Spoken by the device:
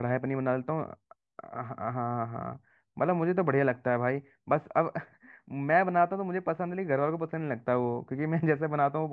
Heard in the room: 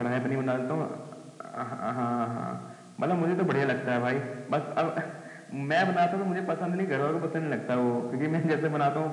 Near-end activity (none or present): none